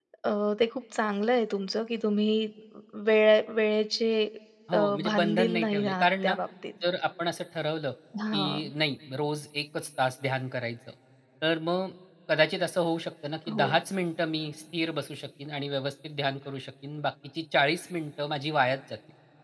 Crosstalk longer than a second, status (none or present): present